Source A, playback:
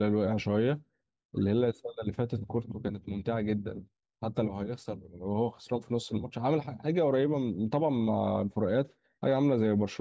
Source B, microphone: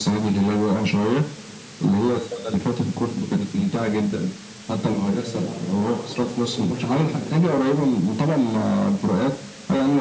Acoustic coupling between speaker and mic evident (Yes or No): Yes